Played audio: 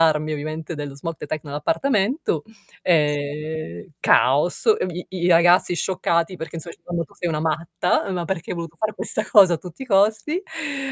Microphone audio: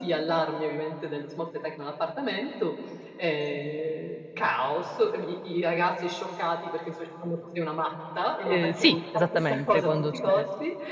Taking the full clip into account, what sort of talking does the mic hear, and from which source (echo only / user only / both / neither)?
both